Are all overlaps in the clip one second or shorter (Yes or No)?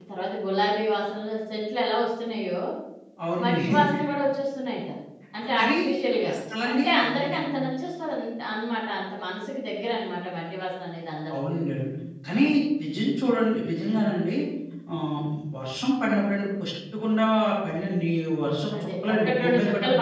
No